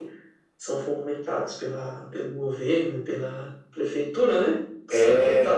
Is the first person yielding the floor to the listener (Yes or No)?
No